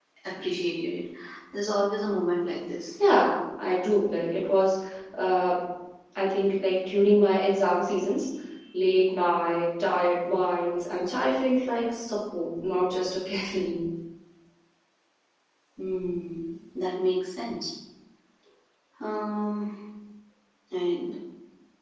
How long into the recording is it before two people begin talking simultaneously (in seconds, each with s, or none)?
none